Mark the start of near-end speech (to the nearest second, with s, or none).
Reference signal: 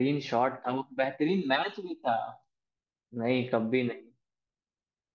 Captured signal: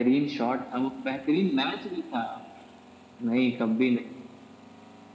none